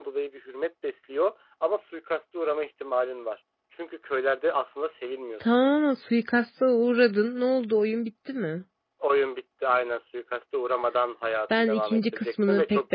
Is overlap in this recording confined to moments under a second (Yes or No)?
No